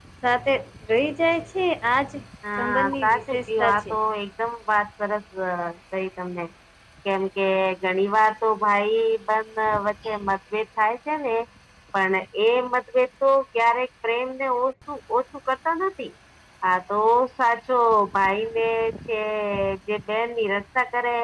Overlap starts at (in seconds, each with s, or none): 2.6 s